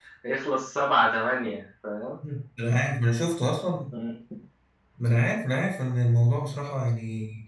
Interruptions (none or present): none